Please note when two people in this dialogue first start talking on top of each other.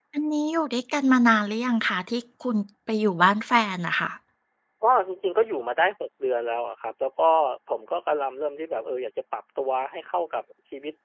none

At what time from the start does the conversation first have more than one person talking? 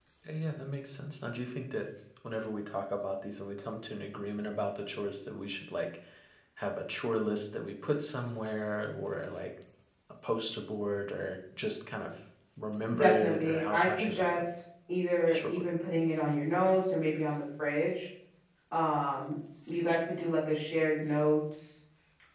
13 s

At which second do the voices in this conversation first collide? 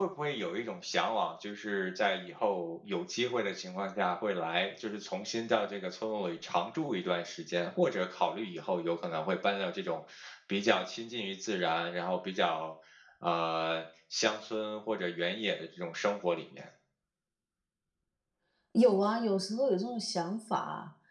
none

